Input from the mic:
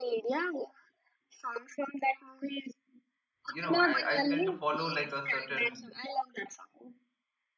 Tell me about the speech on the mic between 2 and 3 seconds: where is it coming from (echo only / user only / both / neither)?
echo only